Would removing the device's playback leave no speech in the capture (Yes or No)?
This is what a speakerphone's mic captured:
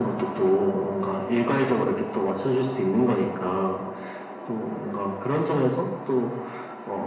Yes